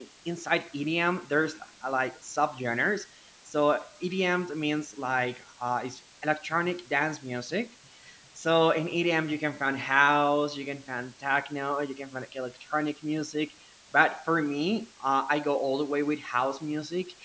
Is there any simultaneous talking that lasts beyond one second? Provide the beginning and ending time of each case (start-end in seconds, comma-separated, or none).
none